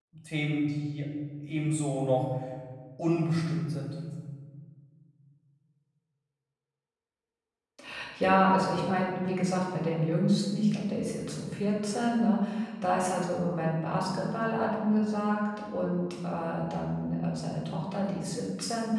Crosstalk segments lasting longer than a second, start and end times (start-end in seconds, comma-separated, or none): none